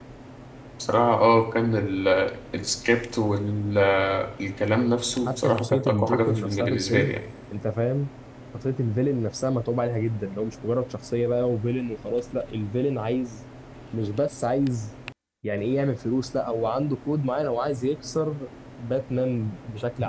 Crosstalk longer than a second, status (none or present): present